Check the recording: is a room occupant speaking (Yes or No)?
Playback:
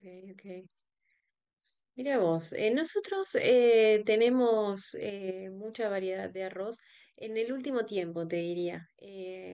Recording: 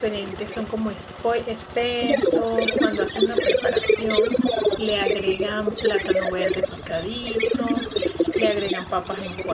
Yes